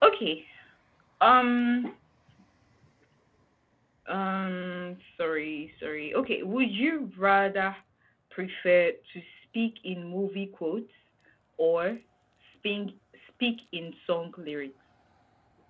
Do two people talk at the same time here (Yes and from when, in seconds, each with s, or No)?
No